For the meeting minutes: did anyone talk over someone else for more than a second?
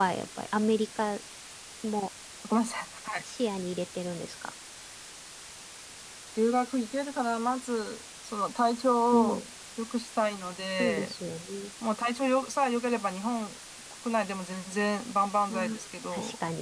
No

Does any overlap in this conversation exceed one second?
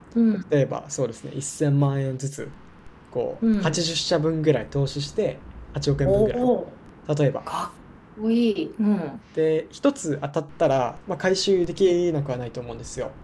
No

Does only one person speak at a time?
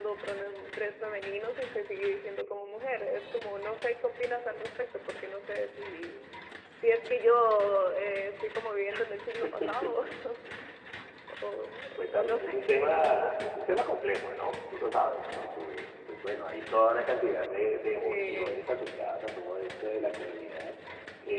No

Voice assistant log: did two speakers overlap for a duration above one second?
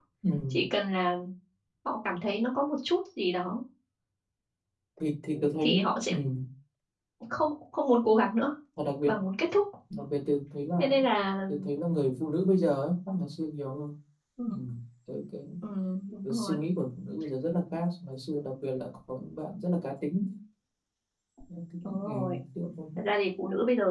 No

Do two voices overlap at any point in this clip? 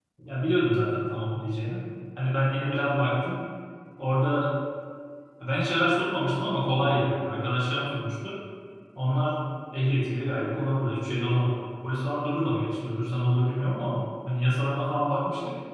No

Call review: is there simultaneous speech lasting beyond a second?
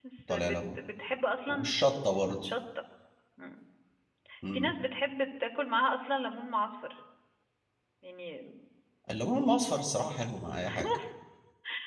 No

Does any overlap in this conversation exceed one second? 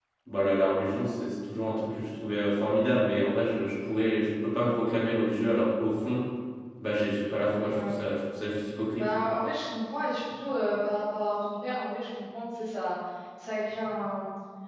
No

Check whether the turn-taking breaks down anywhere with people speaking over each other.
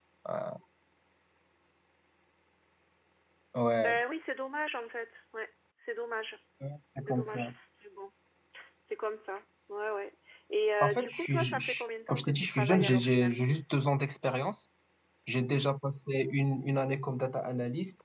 Yes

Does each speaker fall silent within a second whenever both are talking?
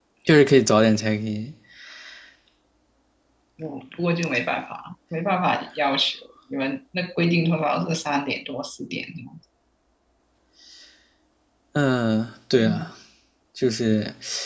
Yes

